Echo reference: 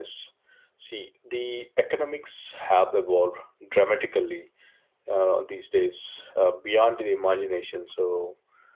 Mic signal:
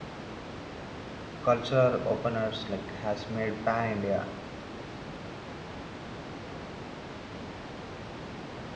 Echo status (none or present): none